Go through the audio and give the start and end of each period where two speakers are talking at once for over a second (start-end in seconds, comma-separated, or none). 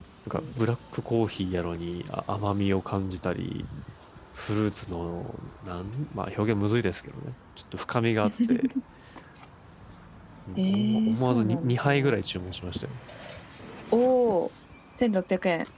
10.6-12.2